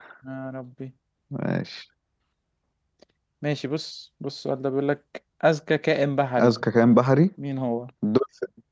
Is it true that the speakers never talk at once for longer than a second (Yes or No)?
Yes